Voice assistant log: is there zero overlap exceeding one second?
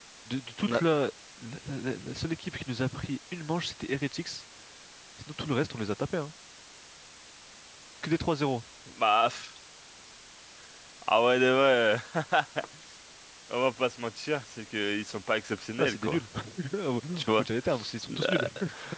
Yes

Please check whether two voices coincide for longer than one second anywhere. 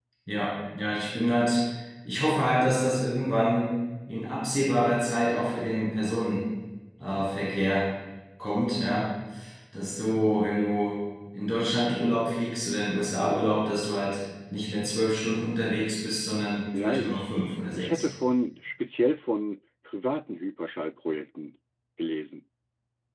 Yes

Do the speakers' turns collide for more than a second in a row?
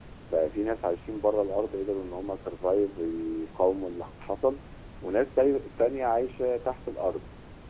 No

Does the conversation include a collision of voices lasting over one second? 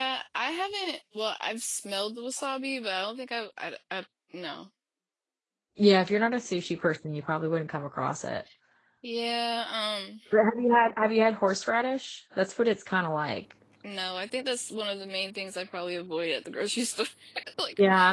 No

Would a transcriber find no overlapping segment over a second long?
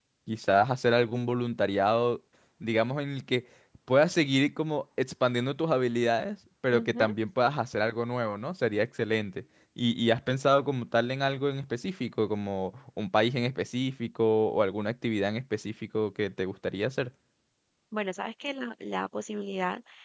Yes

